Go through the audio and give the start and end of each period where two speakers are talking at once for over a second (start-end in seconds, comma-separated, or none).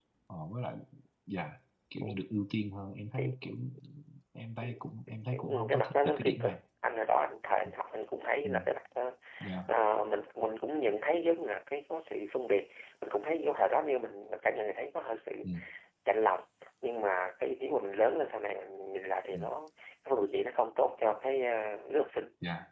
5.3-6.6